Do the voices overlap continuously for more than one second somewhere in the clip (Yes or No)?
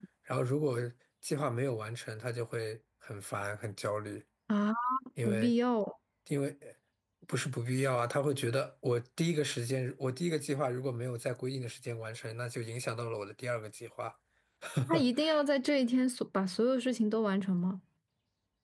No